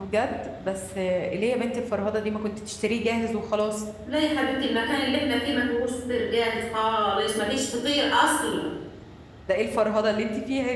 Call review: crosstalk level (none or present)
none